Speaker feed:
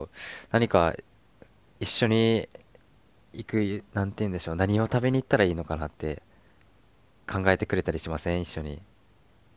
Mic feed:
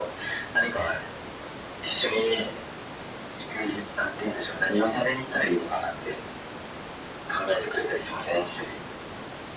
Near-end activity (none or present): none